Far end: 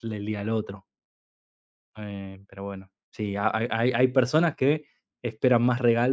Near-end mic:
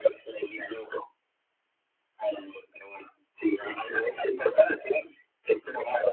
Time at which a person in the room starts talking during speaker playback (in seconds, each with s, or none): none